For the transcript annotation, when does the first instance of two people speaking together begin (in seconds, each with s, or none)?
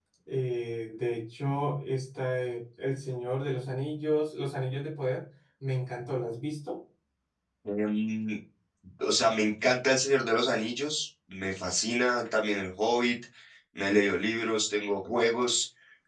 none